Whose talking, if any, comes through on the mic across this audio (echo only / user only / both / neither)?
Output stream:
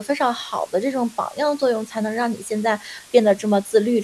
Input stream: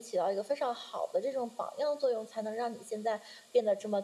echo only